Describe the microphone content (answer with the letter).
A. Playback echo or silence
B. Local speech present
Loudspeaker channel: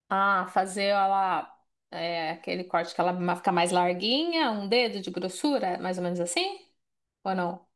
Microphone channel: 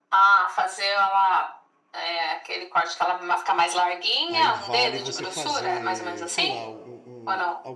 B